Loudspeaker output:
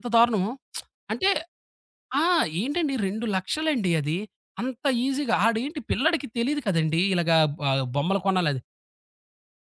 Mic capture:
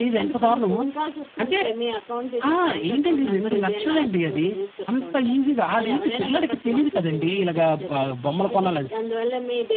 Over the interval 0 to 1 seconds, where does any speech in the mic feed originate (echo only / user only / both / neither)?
both